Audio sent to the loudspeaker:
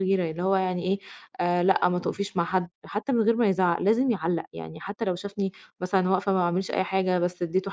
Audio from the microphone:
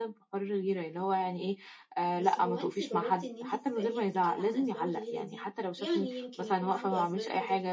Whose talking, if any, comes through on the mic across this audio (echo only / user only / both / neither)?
both